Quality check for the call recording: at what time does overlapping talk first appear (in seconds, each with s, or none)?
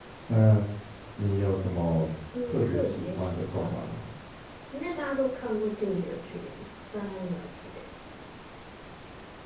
2.3 s